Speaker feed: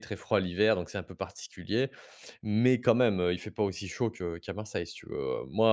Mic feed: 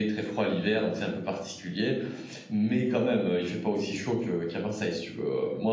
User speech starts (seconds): none

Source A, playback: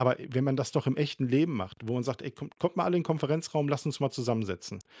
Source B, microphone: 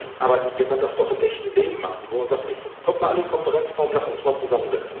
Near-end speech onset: 2.9 s

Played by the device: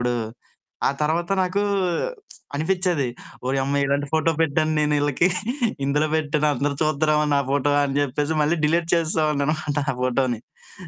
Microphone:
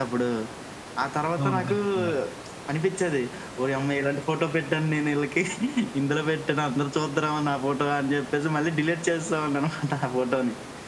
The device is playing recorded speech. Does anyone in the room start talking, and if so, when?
1.4 s

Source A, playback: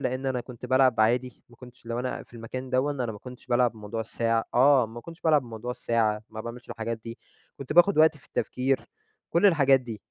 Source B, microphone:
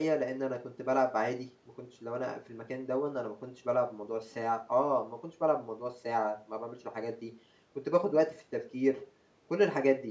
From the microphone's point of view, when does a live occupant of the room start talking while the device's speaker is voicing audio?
none

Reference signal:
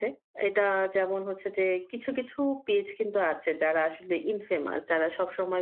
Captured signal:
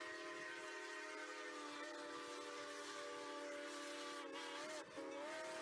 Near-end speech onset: none

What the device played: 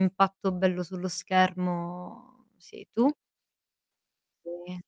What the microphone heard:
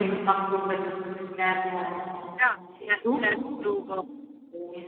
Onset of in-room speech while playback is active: 2.4 s

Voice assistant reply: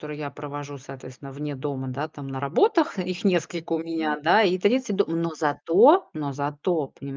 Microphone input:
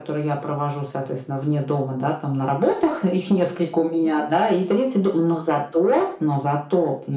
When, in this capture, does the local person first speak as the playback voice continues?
none

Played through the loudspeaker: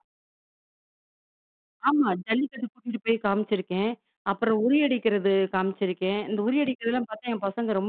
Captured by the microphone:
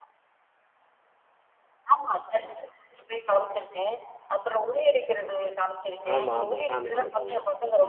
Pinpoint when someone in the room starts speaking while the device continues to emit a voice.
6.1 s

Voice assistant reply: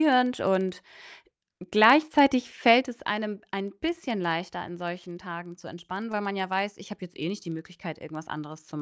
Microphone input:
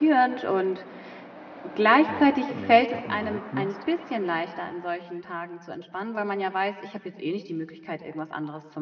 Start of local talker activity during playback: 2.0 s

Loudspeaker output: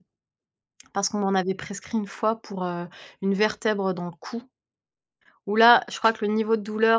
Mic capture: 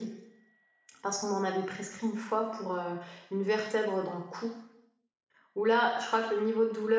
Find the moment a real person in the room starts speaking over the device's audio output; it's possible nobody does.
none

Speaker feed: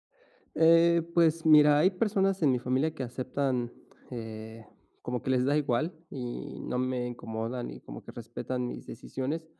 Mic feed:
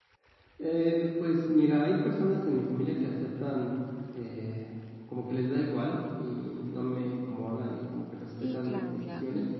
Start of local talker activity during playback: 8.2 s

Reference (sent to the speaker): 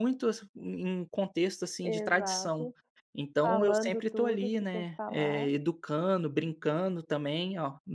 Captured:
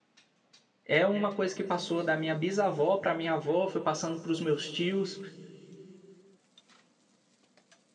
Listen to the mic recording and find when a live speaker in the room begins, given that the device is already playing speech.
0.8 s

